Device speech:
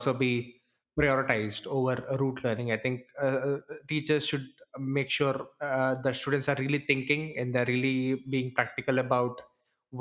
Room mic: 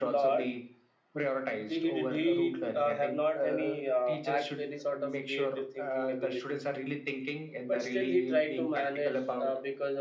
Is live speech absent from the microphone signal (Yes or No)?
No